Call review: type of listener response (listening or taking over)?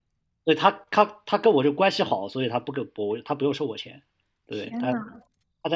listening